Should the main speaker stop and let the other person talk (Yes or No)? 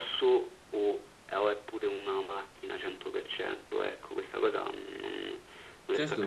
Yes